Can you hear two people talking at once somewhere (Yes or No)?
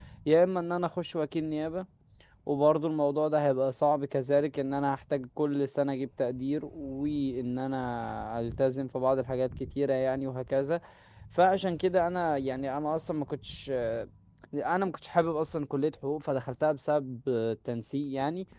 No